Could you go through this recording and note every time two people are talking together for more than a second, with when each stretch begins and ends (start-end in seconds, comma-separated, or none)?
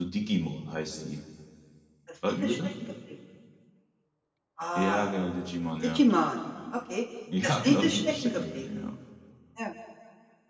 7.4-8.6